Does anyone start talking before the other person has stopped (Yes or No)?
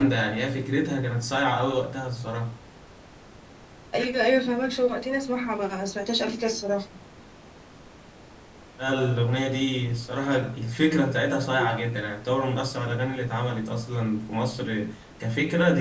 No